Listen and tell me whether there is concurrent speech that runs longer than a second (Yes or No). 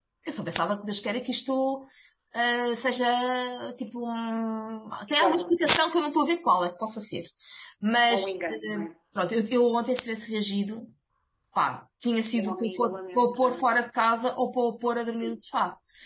Yes